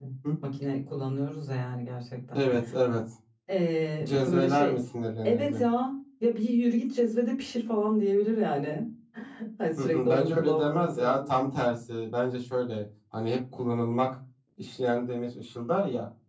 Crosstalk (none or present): present